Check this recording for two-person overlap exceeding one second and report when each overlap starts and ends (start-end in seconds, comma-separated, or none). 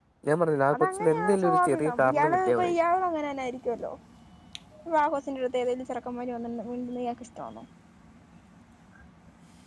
0.7-2.7